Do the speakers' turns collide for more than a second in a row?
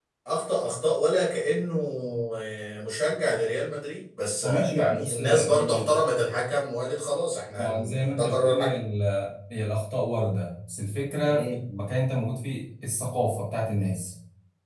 Yes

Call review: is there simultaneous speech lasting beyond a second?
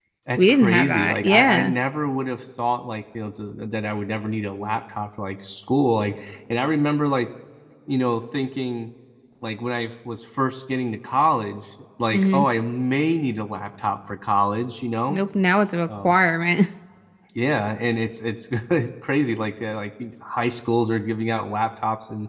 Yes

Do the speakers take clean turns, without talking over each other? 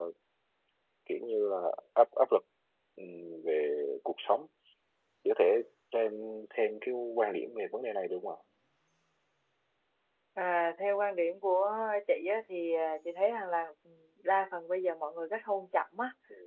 Yes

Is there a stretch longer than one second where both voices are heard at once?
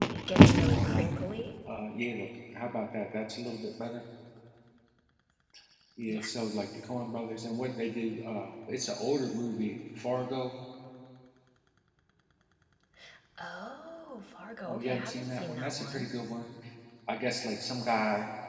Yes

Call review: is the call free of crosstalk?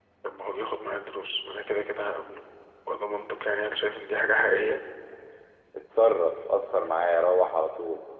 Yes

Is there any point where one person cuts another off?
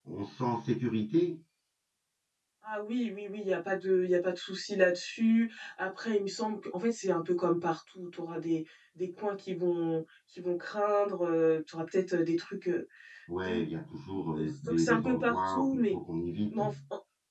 Yes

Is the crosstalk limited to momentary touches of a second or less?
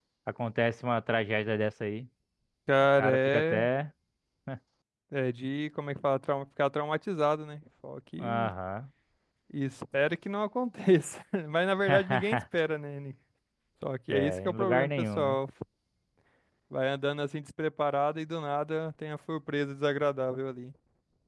No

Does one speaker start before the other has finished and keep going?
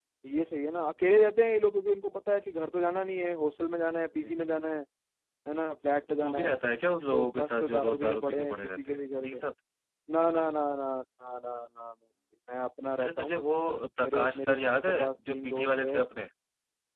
Yes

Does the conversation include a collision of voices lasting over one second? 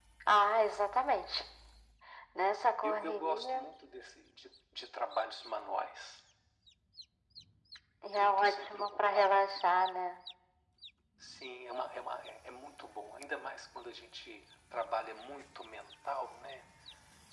Yes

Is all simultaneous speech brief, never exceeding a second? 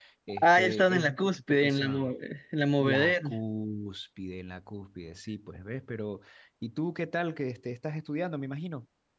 No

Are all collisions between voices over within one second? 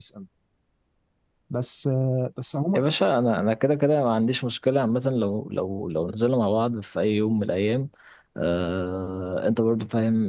Yes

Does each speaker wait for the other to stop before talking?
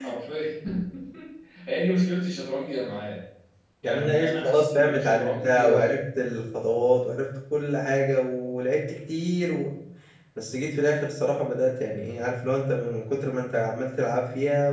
No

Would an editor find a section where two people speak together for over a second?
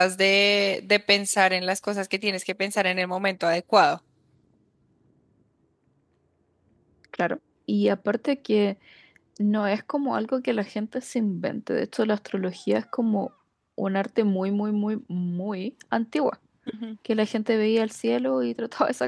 No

